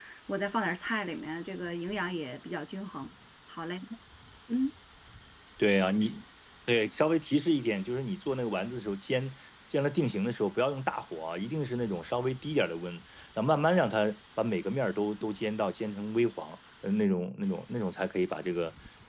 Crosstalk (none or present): none